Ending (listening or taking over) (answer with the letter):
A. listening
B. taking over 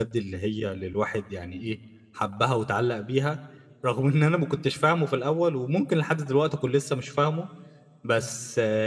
A